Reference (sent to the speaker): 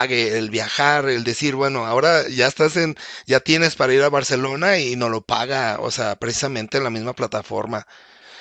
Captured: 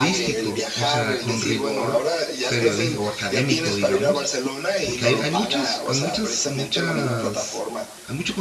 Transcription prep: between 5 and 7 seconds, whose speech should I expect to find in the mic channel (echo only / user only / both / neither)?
both